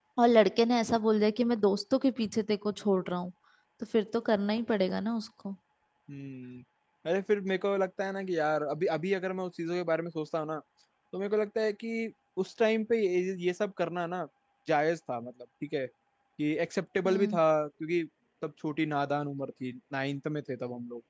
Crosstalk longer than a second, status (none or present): none